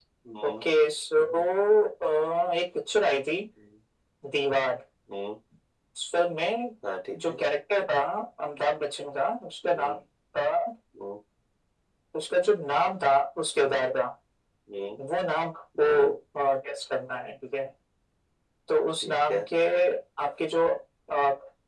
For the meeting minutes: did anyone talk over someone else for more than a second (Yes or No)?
No